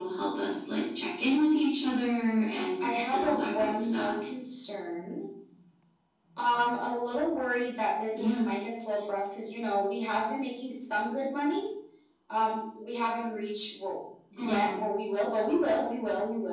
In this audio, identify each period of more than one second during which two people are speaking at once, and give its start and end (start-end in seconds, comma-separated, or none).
2.8-4.2